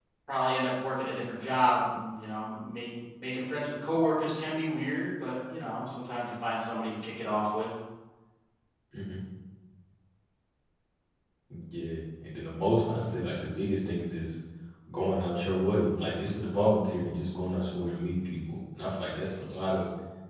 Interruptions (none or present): none